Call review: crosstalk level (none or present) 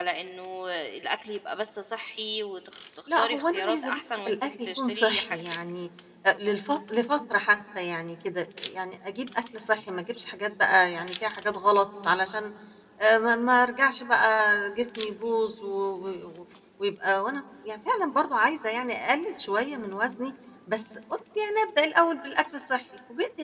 present